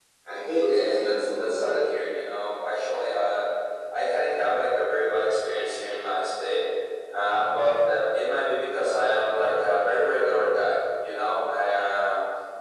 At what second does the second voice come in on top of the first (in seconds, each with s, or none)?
0.7 s